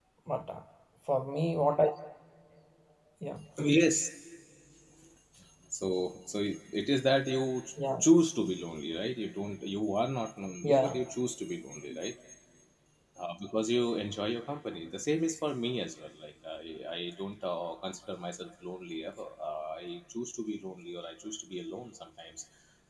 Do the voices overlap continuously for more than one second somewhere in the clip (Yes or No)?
No